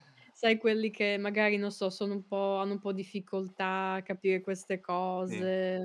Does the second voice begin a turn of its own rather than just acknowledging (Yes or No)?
No